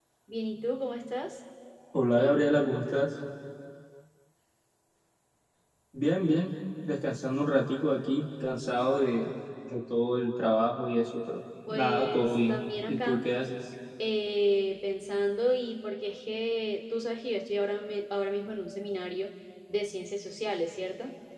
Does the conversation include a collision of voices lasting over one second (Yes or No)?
Yes